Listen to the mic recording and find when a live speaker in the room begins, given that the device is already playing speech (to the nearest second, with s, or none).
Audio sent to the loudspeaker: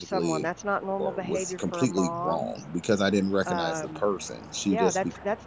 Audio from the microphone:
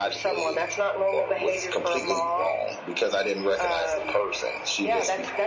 none